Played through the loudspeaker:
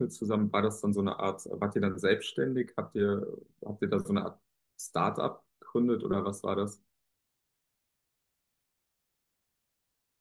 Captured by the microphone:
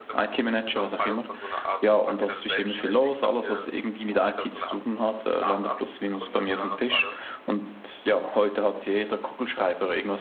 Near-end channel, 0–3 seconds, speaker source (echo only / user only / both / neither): both